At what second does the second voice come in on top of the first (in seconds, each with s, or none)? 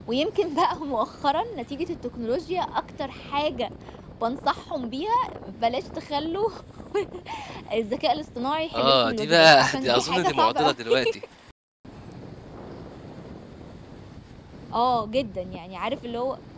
8.7 s